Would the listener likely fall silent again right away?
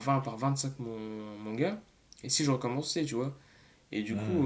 Yes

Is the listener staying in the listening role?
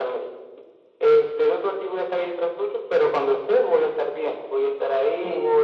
Yes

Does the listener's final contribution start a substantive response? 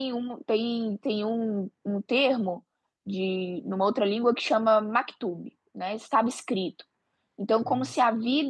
No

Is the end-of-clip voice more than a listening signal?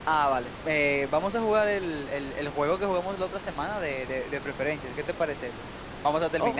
Yes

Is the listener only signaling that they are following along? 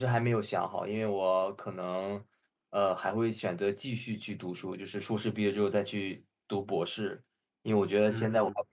Yes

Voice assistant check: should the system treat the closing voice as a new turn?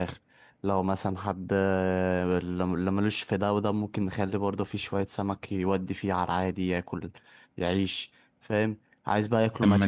No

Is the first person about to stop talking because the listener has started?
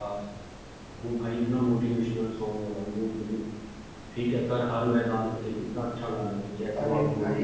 Yes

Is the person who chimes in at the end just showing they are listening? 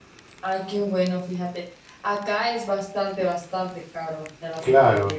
No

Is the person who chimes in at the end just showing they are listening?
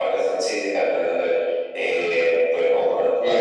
No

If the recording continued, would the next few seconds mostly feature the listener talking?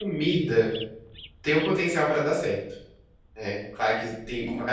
No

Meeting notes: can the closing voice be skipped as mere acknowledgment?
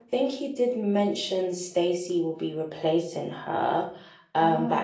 Yes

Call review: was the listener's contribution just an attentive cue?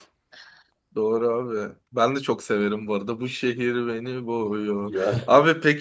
Yes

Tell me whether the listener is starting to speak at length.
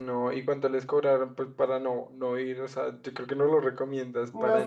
Yes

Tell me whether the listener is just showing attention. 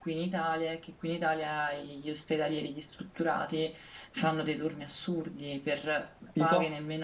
Yes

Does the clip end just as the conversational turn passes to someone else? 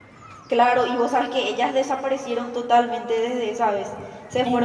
No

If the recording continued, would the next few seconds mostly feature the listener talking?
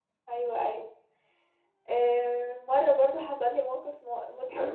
Yes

